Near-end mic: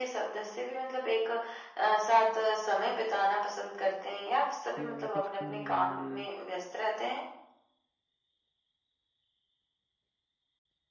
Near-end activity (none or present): present